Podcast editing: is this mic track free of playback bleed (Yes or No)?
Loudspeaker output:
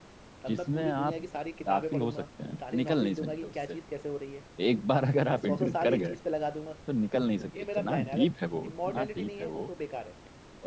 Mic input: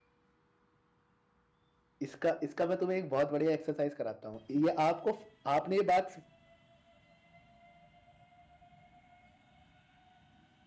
Yes